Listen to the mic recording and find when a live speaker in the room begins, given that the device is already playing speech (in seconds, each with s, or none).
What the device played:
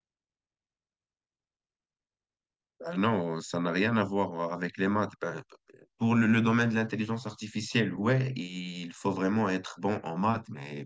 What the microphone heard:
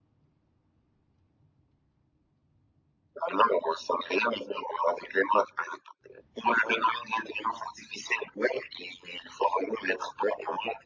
none